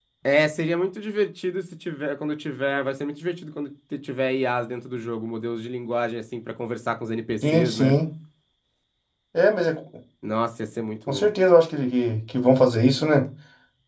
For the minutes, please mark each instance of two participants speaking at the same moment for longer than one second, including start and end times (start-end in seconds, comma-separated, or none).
none